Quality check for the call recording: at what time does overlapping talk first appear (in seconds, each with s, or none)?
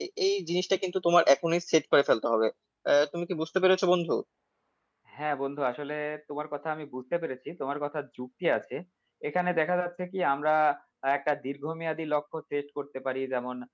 none